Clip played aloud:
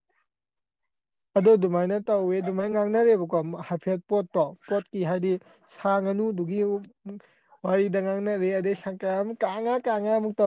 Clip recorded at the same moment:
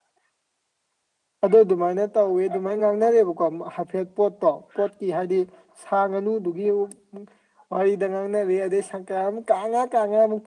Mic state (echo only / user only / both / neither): echo only